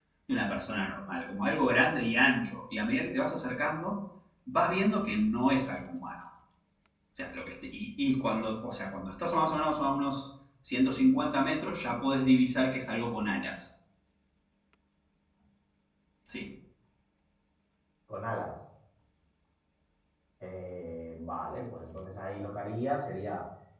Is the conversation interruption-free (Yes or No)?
Yes